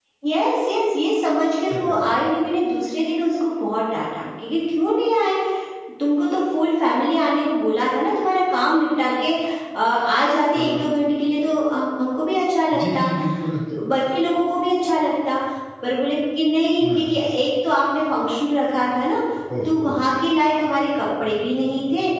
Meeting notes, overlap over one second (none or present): none